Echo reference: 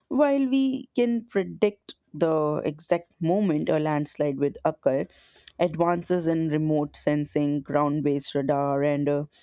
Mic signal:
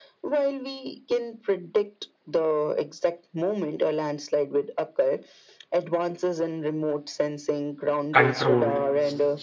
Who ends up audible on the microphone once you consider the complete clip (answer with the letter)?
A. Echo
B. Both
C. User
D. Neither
B